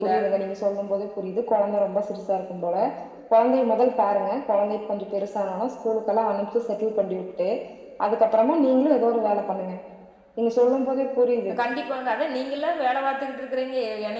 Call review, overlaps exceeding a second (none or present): none